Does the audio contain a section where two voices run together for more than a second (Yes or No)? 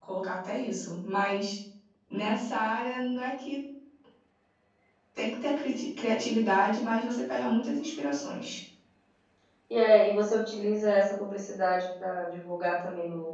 No